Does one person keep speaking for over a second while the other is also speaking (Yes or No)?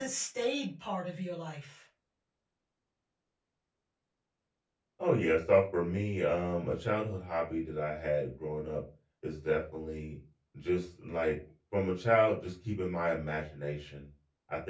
No